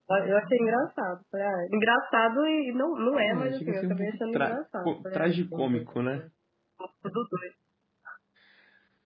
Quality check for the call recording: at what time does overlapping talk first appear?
3.1 s

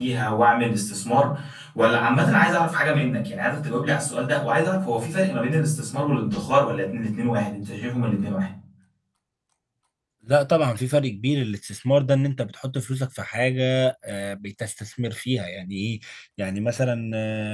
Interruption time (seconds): none

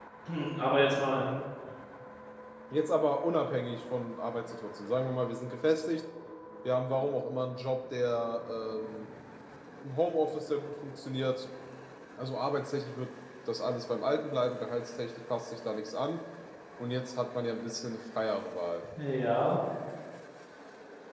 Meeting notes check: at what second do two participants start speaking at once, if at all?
none

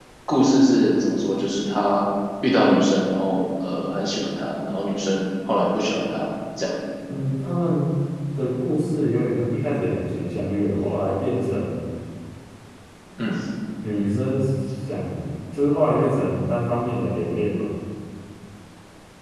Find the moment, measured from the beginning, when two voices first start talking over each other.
none

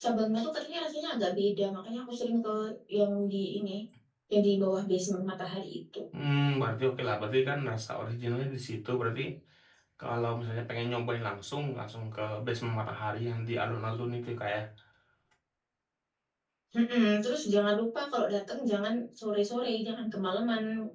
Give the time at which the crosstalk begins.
none

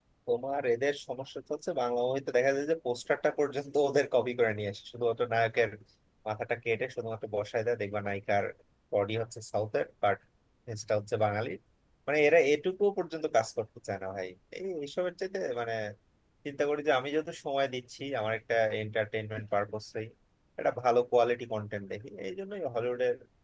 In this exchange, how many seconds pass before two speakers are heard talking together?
none

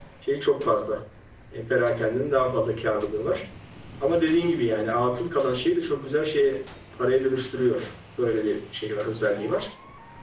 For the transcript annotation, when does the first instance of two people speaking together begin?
none

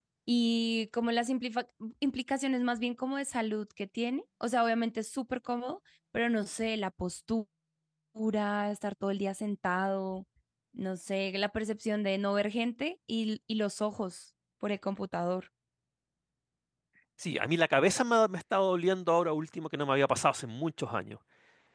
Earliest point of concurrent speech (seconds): none

